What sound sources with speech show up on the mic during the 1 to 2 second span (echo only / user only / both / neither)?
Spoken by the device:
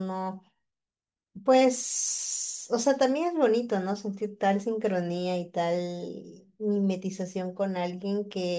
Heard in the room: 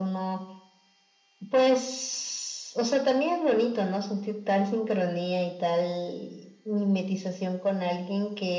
echo only